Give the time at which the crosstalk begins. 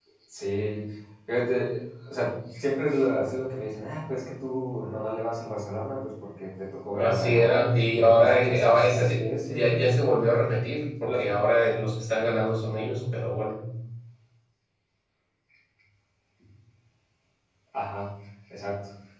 6.9 s

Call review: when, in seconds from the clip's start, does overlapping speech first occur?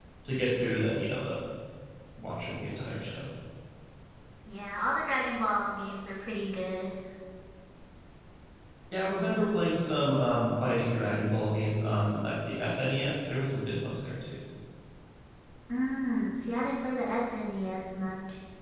none

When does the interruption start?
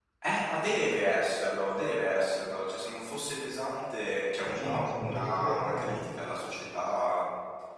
4.4 s

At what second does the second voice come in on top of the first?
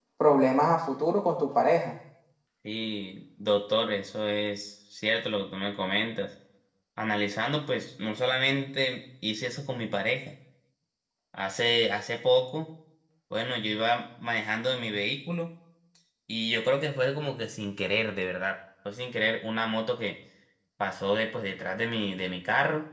none

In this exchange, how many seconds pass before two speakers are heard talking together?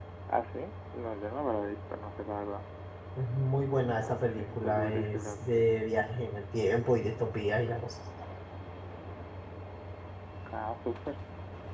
4.0 s

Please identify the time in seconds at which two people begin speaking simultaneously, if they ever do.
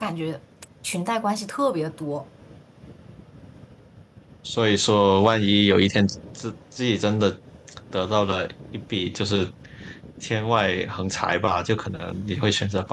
none

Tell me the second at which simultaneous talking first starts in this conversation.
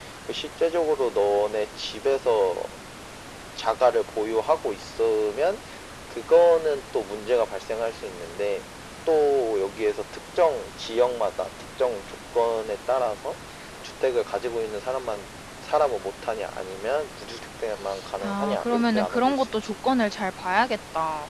18.2 s

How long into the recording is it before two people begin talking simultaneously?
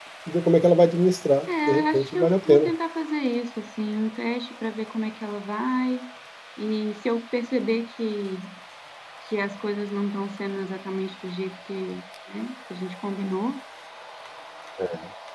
1.5 s

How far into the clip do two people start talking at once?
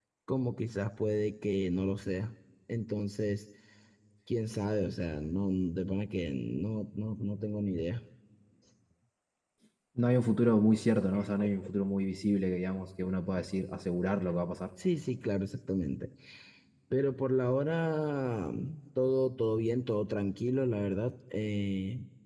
none

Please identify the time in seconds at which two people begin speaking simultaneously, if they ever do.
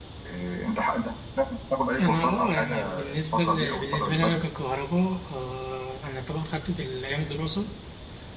2.0 s

